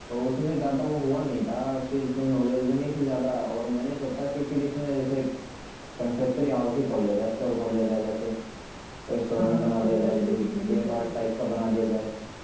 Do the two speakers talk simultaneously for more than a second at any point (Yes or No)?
Yes